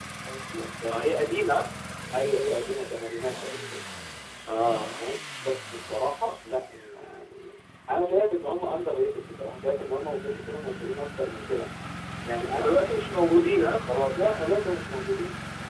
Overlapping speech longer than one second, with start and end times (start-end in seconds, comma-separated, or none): none